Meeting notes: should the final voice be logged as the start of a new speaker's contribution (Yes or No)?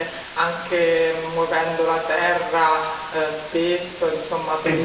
No